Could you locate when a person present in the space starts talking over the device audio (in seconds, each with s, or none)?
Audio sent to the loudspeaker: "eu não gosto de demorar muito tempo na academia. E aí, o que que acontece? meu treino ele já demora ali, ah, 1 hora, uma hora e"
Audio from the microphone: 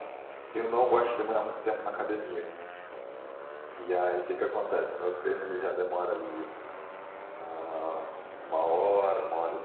none